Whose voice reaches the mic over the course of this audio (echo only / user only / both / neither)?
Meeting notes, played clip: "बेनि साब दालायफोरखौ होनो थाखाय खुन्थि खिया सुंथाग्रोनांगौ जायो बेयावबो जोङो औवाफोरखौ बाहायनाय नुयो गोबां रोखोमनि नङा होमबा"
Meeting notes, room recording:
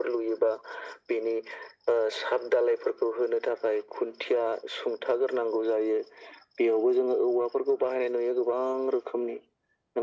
echo only